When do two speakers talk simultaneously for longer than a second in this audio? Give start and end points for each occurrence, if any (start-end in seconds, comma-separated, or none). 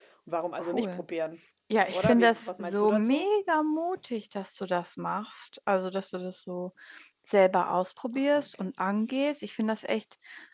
1.9-3.3